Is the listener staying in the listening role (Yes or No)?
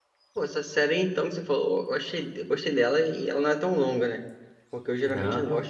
Yes